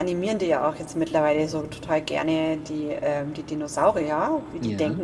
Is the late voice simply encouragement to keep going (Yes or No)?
Yes